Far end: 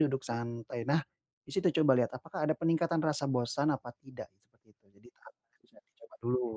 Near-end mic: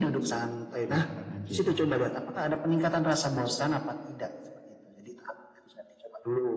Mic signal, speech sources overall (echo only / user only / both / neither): both